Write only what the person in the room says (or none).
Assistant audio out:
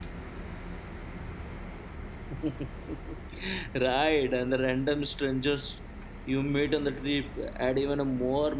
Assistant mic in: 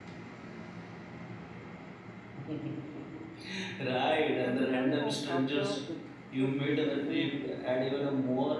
And returning home after the trip is a whole mood.